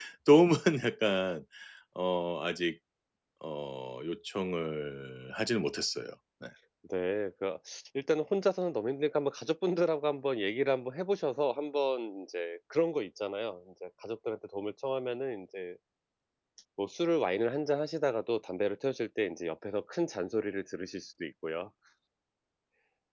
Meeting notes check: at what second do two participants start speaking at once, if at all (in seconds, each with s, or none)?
none